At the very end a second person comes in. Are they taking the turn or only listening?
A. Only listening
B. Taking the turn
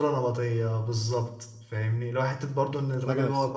A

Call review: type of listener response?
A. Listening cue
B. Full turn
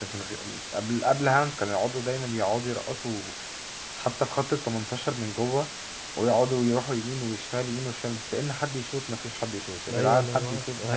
B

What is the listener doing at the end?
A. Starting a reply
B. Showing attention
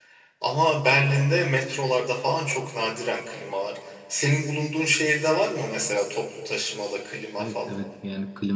A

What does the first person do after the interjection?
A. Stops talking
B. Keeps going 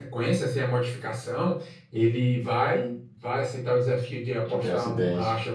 B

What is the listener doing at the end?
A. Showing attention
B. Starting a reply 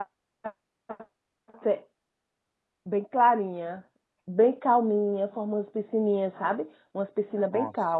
A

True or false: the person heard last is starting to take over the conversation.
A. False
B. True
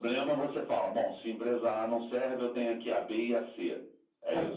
B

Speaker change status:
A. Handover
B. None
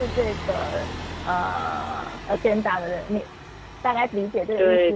A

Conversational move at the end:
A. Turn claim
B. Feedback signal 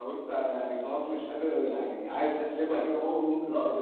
A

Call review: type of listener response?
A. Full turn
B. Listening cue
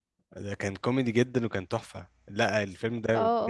B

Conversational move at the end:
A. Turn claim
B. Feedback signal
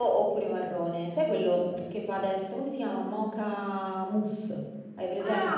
A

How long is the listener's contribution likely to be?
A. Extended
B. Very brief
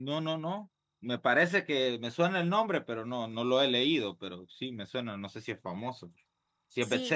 A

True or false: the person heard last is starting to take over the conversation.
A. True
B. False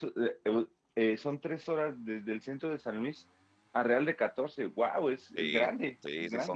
A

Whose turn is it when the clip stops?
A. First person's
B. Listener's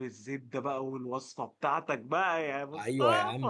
B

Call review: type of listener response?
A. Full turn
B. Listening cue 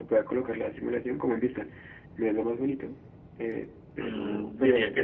A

